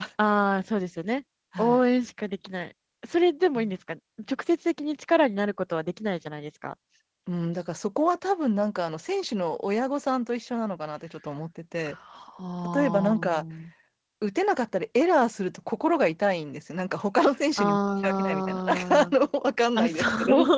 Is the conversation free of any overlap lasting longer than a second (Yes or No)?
No